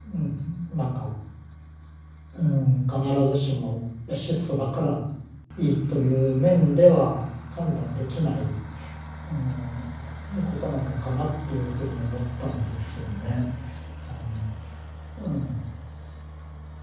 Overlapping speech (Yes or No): No